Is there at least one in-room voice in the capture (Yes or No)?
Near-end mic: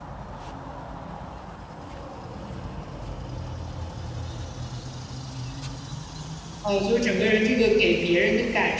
Yes